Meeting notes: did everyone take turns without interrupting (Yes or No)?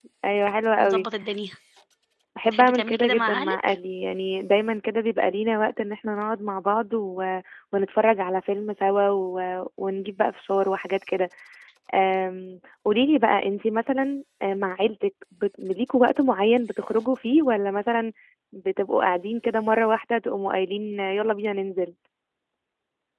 No